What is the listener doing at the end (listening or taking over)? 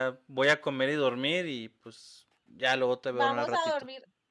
taking over